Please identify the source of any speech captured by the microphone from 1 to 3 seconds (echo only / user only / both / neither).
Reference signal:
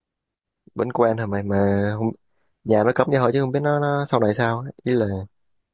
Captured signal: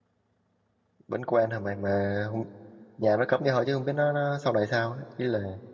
echo only